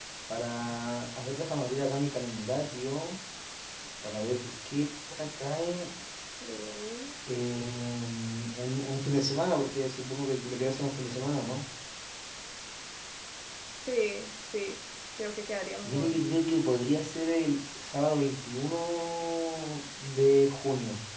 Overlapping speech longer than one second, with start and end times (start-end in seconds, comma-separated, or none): none